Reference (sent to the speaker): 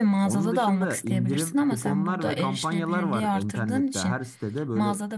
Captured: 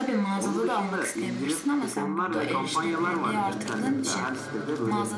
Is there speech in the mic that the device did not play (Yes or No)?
Yes